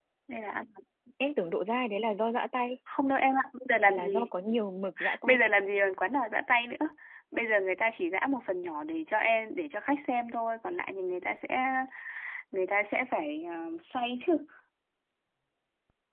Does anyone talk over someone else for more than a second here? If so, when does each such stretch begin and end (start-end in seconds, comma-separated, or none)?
none